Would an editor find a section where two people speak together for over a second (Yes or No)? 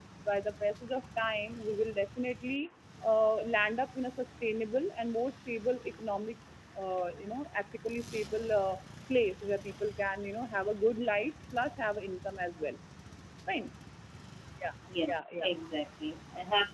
No